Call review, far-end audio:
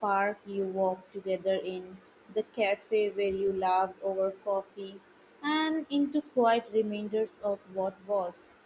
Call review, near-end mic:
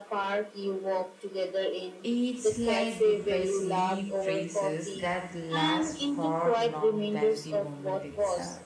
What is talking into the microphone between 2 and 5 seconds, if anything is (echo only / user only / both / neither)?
both